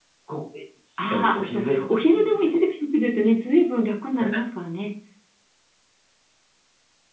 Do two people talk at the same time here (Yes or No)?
Yes